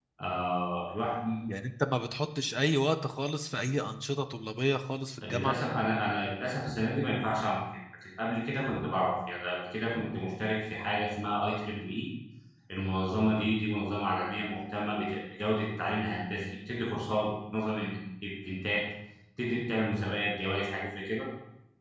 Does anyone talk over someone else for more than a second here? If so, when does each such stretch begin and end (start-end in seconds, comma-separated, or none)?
none